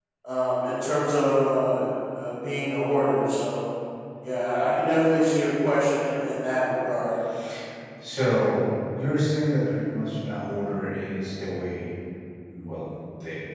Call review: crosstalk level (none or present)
none